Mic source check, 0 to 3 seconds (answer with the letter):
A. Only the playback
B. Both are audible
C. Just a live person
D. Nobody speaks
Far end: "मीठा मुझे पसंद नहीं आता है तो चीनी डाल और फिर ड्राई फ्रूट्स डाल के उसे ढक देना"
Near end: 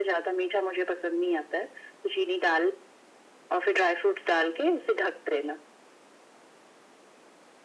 A